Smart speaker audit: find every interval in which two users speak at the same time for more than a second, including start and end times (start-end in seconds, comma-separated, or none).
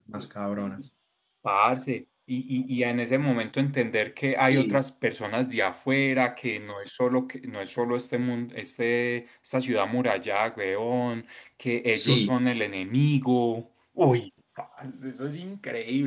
none